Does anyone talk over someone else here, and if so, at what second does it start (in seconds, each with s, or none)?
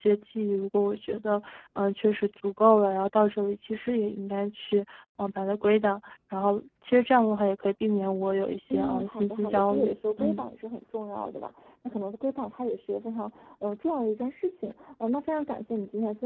8.7 s